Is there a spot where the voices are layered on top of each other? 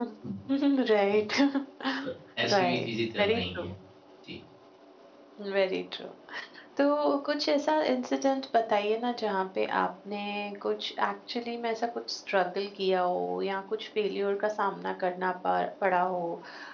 Yes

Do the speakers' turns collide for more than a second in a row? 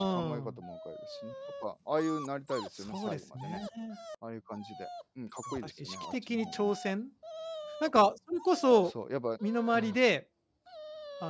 Yes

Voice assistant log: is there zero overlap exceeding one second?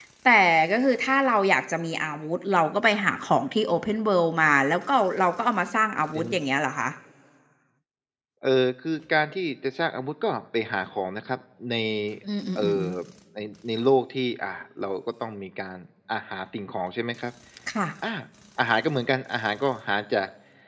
Yes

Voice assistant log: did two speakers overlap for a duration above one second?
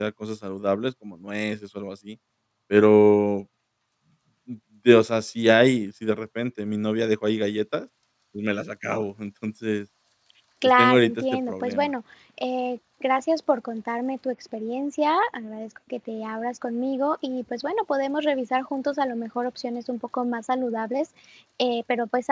Yes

